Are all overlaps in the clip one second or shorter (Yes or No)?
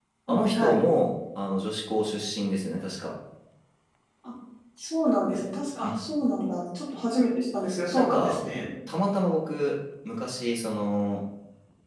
Yes